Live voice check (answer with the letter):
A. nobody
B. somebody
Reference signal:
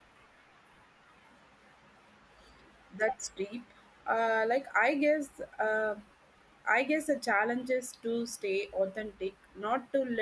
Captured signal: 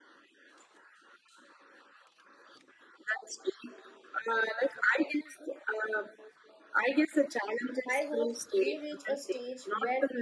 B